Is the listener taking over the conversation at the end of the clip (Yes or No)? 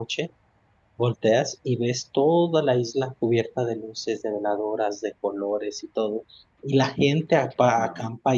No